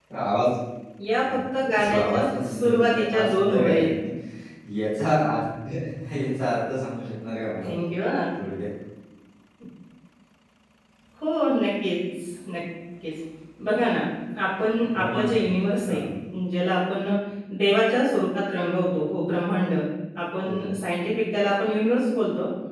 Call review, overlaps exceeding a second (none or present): present